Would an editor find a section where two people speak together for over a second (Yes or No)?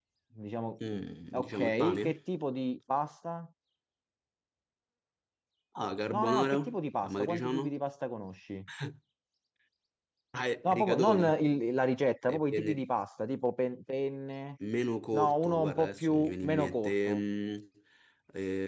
Yes